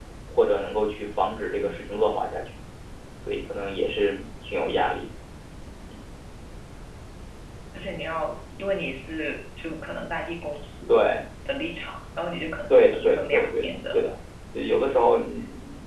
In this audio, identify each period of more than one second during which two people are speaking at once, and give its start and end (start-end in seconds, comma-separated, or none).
12.7-14.0